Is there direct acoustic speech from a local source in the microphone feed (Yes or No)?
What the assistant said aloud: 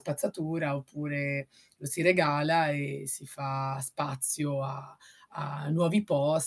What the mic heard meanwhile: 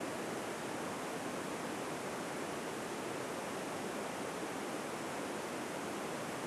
No